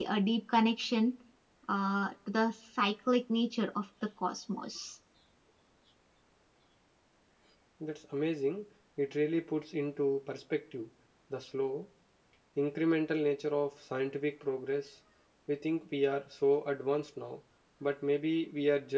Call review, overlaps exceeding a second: none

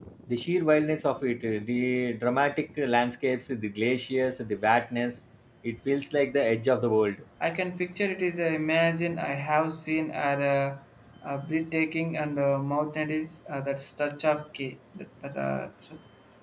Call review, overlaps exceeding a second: none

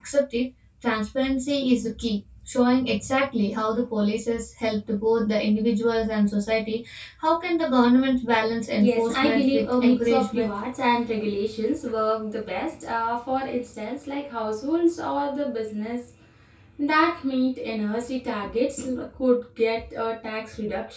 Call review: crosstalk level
present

